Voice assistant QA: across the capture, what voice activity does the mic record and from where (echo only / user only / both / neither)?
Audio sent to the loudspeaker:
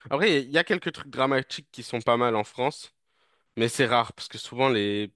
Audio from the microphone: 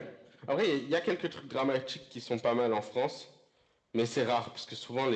echo only